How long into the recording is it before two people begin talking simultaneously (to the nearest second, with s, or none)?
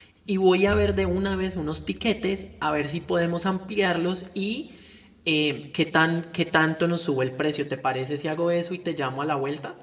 none